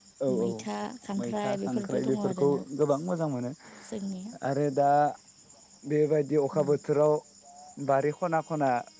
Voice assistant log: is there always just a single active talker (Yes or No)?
No